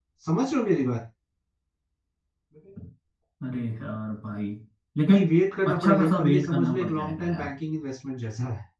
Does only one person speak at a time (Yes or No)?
No